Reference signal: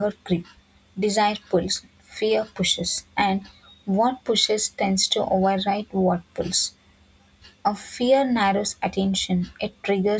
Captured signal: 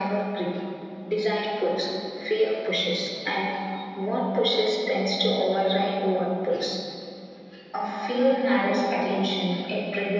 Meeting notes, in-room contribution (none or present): none